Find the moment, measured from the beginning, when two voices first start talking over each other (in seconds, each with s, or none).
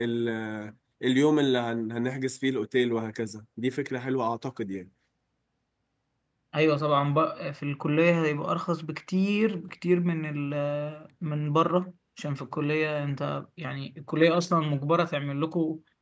none